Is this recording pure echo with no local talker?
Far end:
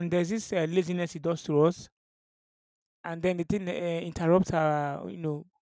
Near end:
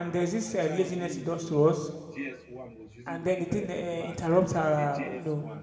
No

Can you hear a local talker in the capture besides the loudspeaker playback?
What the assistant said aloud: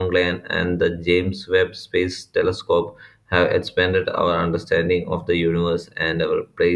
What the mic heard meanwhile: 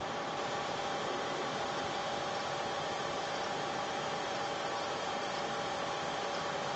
No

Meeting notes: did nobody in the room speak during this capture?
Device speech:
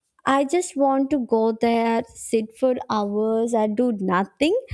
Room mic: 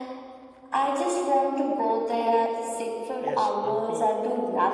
No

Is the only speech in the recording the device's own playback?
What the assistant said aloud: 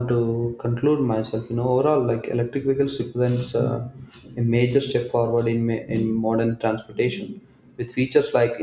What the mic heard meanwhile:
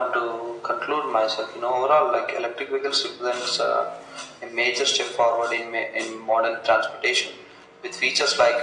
Yes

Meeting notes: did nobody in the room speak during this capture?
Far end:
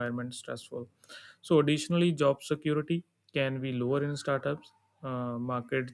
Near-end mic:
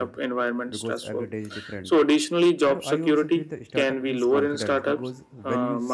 No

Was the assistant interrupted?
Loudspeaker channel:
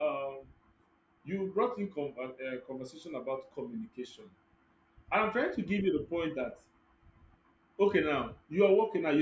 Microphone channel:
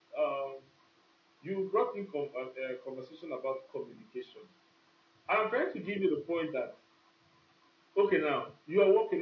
No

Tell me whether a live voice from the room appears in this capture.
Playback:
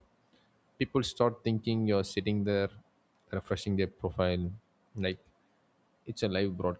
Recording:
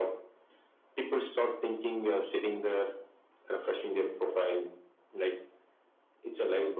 No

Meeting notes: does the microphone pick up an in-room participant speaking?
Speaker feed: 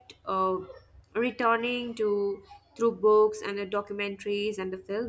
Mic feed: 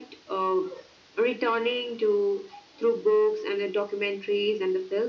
No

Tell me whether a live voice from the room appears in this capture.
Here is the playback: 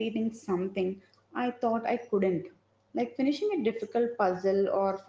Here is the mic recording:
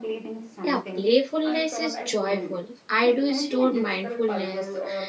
Yes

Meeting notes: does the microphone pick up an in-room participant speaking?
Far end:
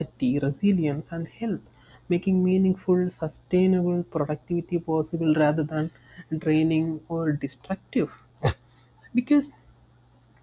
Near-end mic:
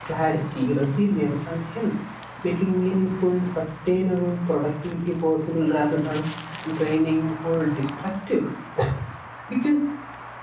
No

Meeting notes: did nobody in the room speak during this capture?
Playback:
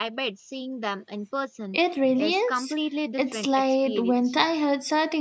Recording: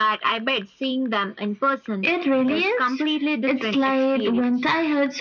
Yes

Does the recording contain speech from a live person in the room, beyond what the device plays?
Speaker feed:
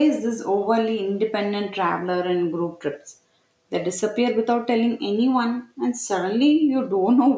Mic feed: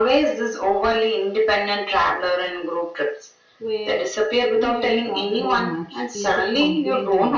Yes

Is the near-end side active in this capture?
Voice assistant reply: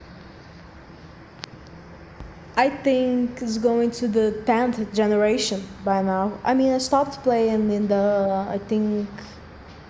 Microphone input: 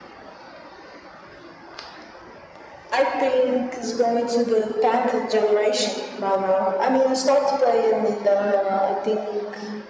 No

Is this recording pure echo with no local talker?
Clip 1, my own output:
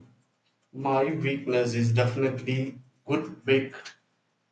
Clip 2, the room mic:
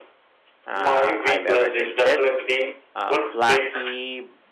No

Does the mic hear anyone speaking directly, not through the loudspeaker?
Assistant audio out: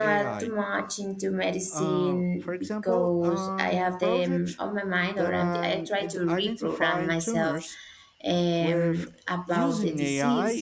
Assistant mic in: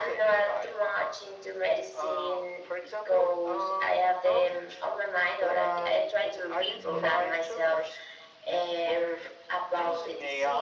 Yes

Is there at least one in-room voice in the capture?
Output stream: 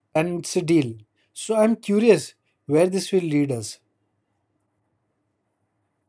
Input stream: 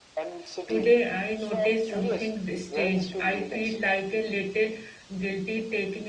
Yes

